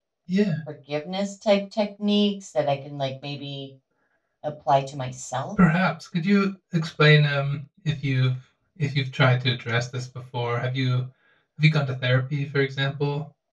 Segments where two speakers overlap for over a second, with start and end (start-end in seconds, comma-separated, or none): none